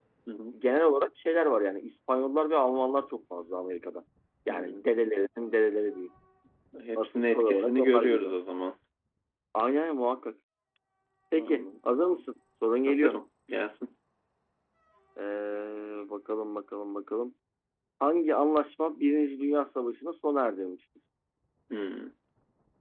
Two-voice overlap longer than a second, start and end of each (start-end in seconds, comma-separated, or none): 7.0-8.4